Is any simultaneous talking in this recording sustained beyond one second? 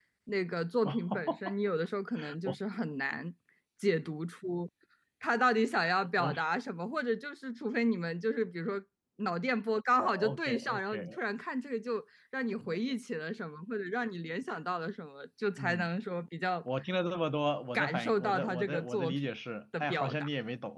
Yes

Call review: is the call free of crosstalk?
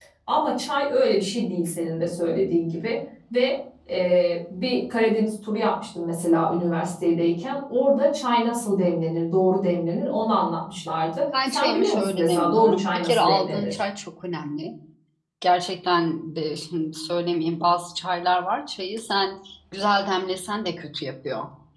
No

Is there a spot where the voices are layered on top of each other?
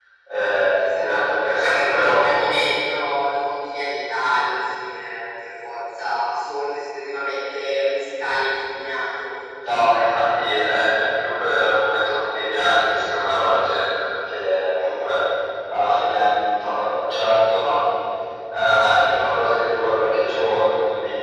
Yes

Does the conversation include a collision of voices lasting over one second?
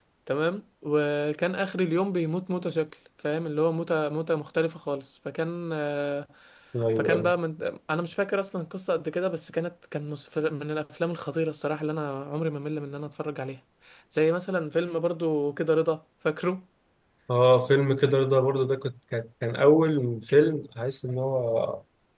No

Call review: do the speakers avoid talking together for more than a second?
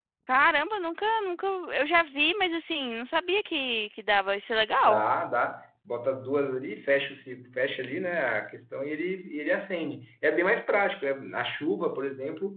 Yes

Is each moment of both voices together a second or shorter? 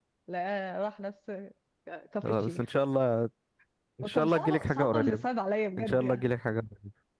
No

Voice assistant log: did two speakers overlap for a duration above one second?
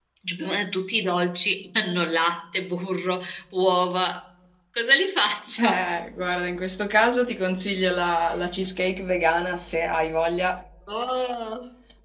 No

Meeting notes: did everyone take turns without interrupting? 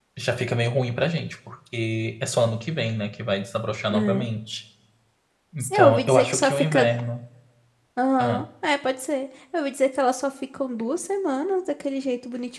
No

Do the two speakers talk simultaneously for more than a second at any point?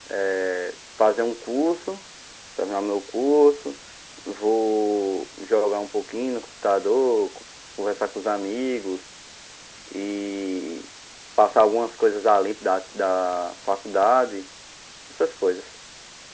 No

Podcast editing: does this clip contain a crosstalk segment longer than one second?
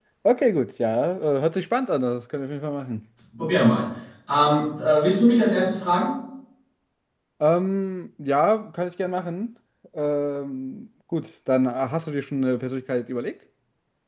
No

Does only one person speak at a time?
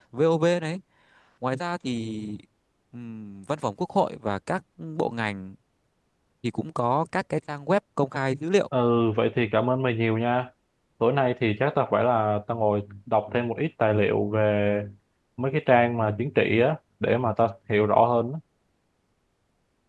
Yes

